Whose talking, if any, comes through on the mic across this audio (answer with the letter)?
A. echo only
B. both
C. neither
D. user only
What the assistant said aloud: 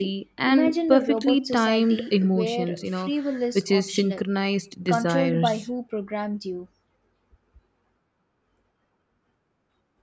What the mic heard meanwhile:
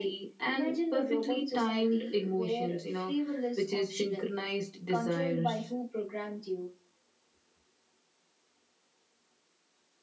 A